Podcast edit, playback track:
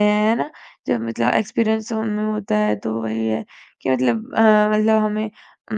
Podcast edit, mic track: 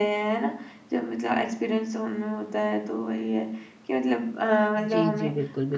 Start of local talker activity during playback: 4.8 s

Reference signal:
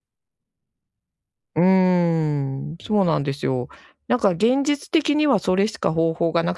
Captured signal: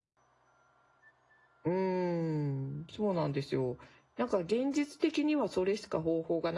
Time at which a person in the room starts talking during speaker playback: none

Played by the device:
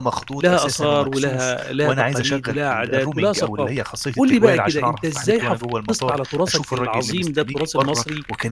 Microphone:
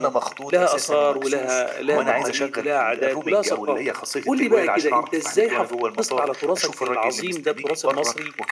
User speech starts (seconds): 1.9 s

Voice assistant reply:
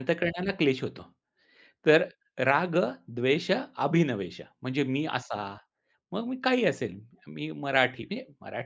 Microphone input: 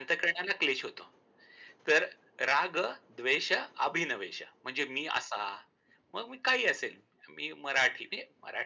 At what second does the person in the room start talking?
none

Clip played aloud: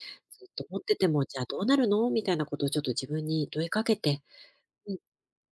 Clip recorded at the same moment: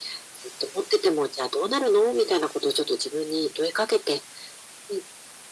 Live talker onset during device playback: none

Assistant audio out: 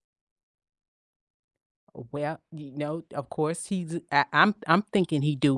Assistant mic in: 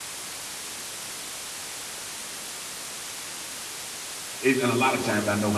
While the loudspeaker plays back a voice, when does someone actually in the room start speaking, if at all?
4.4 s

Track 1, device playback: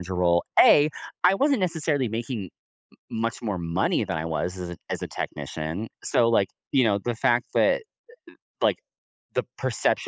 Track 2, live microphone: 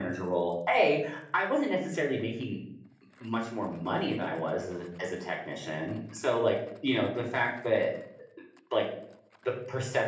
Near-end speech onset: none

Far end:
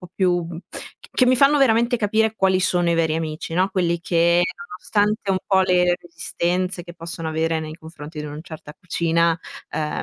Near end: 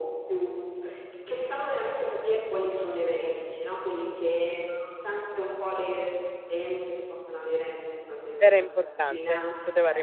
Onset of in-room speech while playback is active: 8.5 s

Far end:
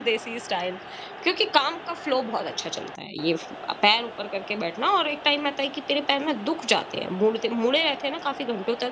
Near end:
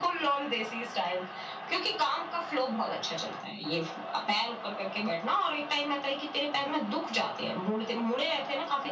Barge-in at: none

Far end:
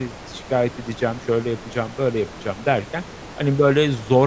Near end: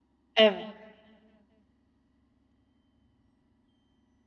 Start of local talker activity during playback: 0.4 s

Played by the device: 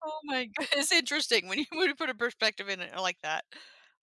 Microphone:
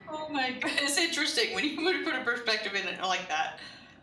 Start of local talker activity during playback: none

